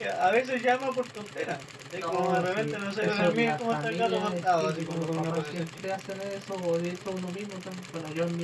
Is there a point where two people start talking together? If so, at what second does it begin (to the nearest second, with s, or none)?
2 s